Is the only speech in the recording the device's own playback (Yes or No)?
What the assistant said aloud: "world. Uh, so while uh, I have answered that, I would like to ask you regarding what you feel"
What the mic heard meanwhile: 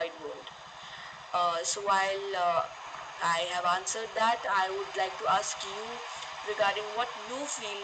Yes